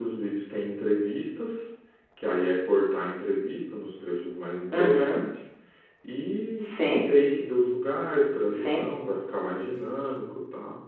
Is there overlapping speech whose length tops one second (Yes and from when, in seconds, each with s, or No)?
No